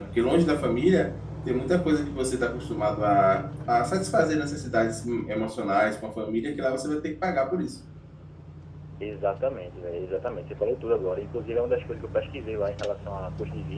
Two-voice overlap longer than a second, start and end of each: none

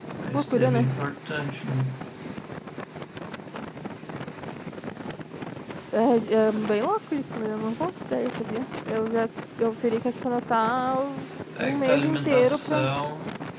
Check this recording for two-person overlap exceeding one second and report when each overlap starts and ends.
11.6-12.9

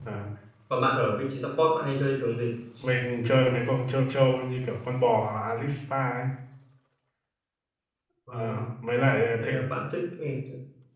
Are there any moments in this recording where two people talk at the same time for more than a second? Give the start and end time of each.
none

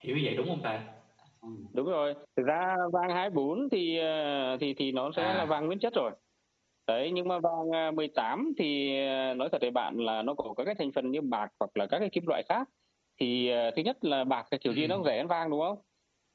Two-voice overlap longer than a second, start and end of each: none

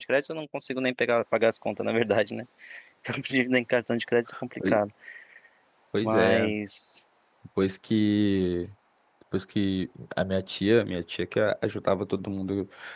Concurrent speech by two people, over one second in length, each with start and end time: none

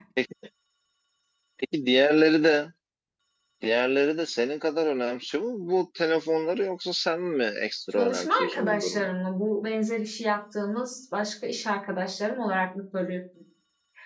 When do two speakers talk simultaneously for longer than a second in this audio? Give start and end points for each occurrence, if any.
7.9-9.1

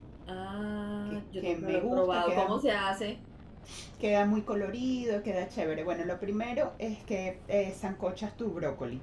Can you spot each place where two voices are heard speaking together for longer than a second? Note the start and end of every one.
1.1-2.6

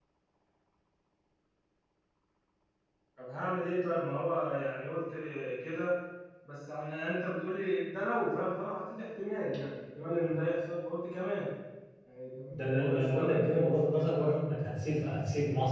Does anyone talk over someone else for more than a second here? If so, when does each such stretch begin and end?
12.5-14.4

